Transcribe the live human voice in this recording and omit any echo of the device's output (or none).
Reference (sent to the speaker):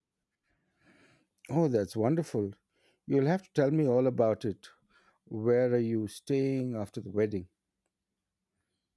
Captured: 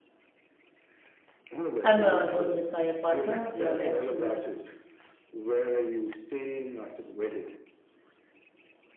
I'm uh, going with my partner. We are actually